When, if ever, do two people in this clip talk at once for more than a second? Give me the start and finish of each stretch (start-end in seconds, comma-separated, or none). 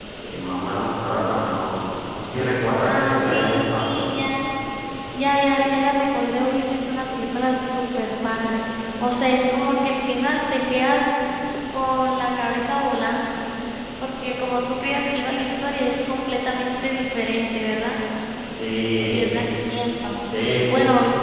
2.8-4.0